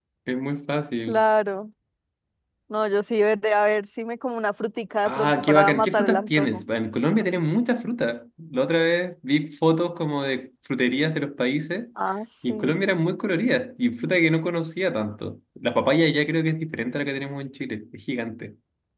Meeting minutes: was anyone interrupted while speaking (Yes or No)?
Yes